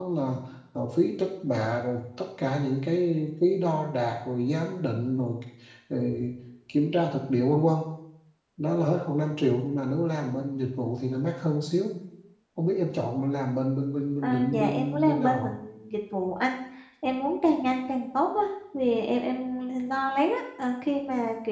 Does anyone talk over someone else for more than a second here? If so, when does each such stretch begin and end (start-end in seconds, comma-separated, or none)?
14.2-15.5